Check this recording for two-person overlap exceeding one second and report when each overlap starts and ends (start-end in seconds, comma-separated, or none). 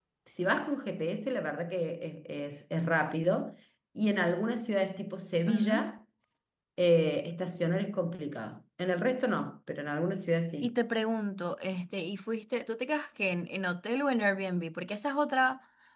none